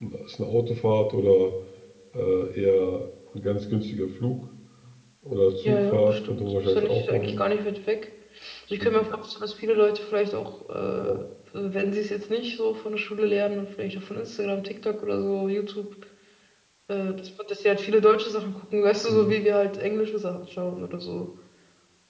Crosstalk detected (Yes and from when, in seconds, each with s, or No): Yes, from 5.6 s